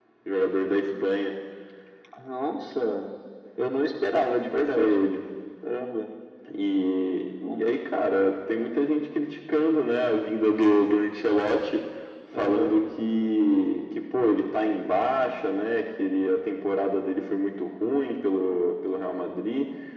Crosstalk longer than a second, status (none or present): none